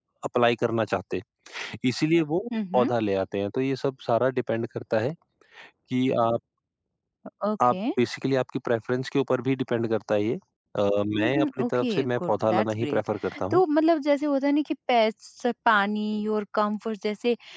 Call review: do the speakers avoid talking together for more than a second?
No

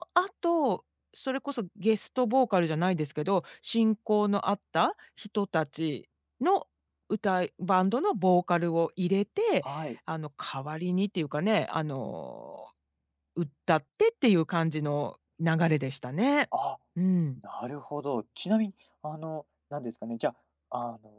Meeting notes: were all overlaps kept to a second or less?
Yes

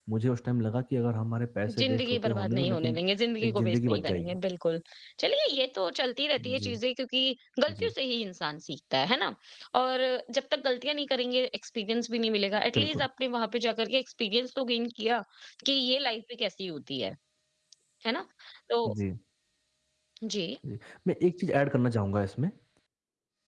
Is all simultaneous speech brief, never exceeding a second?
No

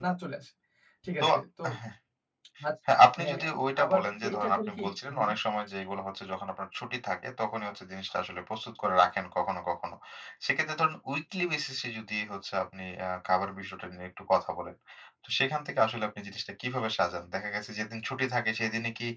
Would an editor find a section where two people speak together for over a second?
Yes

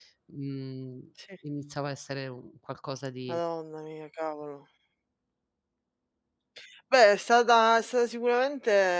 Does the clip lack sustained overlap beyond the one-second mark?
Yes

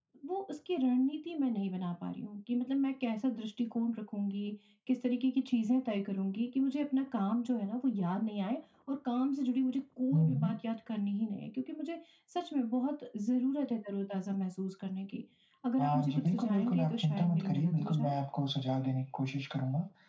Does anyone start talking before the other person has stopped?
Yes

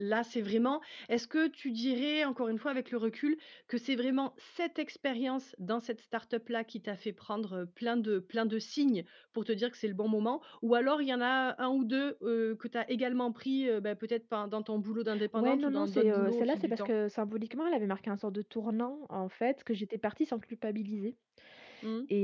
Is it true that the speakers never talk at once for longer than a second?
No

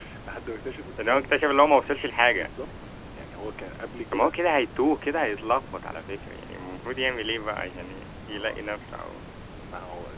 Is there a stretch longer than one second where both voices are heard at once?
No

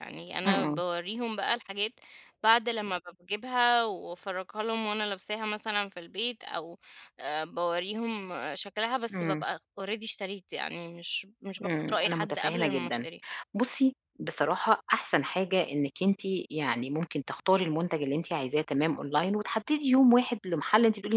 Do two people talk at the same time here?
Yes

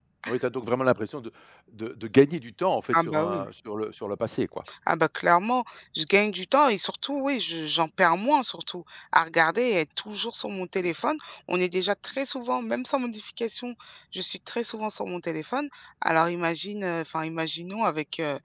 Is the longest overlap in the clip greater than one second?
No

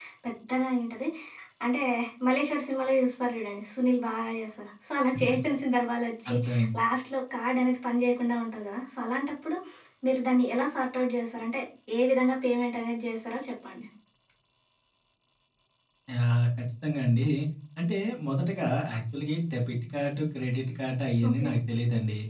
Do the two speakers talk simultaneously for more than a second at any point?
No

